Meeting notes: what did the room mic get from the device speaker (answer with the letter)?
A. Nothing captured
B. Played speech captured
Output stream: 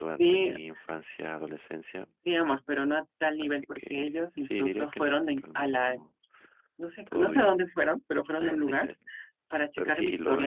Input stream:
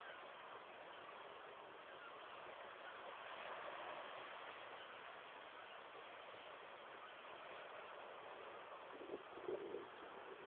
A